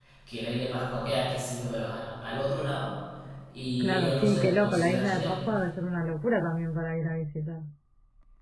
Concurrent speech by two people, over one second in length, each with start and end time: 3.8-5.4

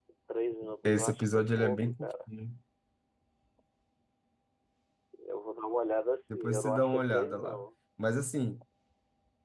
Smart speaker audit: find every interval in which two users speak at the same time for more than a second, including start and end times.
0.8-2.1, 6.3-7.6

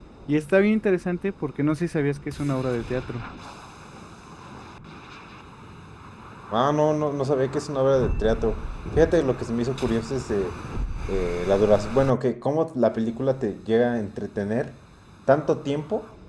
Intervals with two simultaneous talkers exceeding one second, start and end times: none

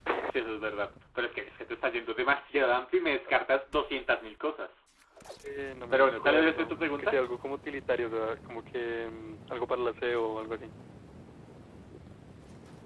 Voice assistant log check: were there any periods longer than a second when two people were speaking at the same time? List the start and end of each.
5.9-7.2

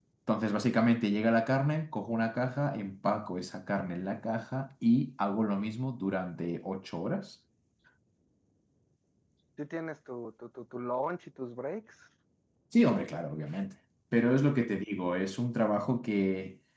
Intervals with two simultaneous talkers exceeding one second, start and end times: none

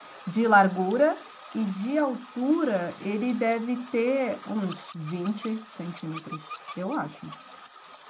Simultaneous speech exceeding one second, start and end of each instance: none

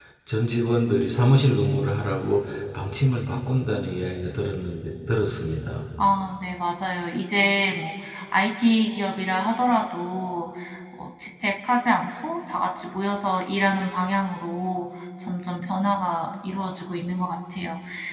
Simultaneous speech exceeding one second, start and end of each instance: none

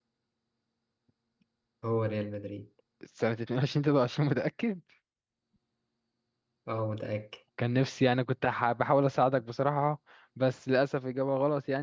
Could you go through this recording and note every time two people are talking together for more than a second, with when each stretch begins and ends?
none

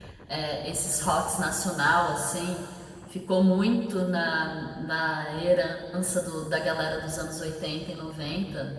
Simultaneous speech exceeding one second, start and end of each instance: none

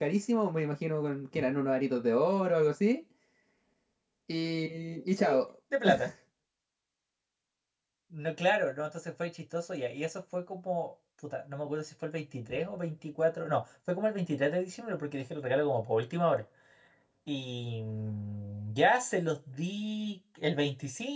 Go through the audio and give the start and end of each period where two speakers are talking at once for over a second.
none

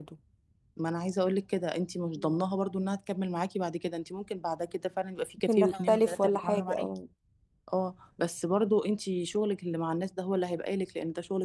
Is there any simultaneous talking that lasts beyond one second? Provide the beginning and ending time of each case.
5.5-6.9

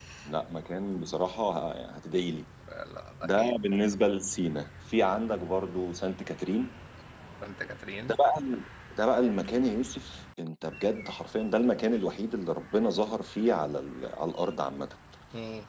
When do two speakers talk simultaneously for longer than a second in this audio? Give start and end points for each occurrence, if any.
none

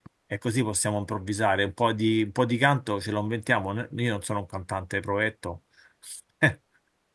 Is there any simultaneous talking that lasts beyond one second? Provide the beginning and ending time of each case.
none

